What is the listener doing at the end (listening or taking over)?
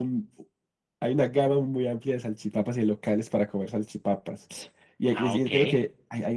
listening